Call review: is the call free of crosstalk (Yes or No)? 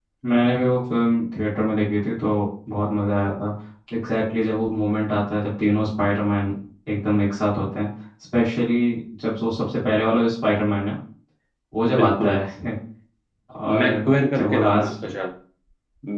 No